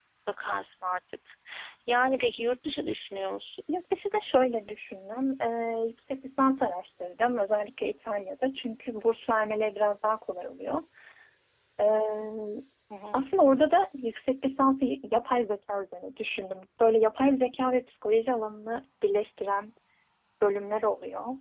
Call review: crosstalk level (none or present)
none